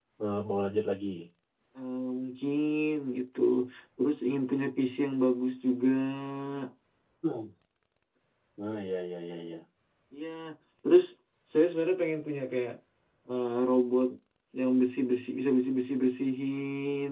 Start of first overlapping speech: none

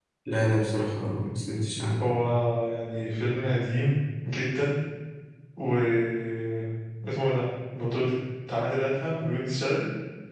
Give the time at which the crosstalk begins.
none

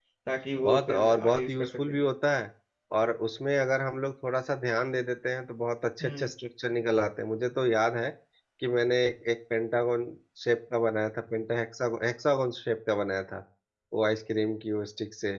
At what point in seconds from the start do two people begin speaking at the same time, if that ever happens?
0.6 s

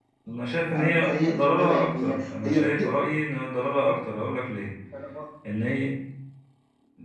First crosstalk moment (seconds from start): 0.7 s

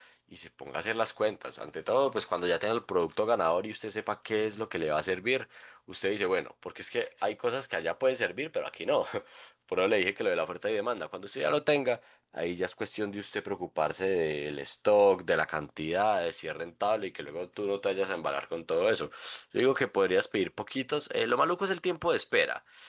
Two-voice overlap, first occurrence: none

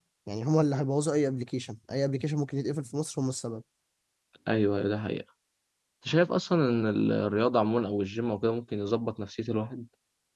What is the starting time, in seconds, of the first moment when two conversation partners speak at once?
none

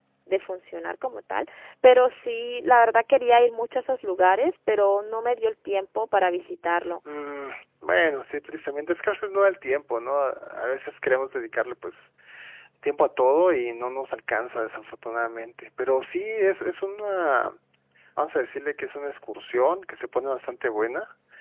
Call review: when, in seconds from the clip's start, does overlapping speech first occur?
none

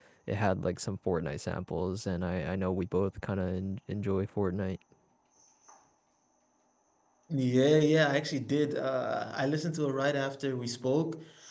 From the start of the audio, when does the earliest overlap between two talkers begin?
none

